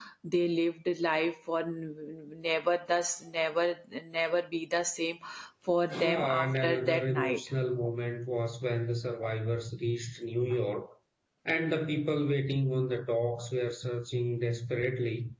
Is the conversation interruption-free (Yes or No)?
No